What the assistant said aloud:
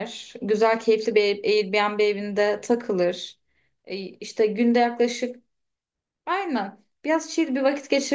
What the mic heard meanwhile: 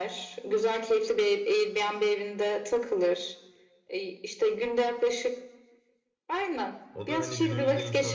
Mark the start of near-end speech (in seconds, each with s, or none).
6.9 s